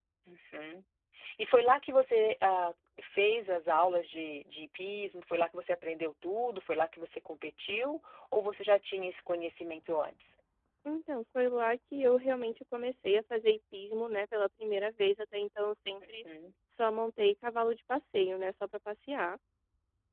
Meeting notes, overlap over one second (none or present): none